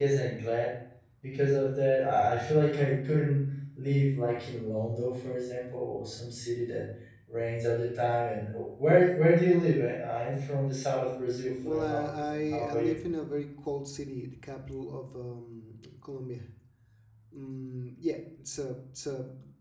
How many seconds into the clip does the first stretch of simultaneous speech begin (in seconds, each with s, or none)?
11.6 s